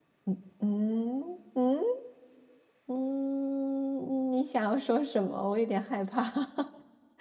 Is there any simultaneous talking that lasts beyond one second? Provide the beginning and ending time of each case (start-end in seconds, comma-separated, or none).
none